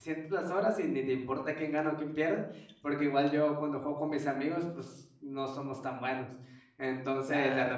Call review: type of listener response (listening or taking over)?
listening